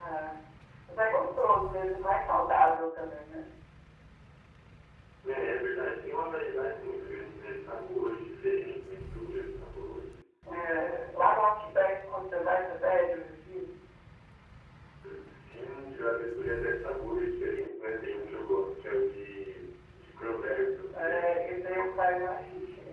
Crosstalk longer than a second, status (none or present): none